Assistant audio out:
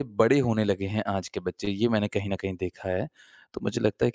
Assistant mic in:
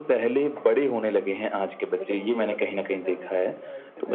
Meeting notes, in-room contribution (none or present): present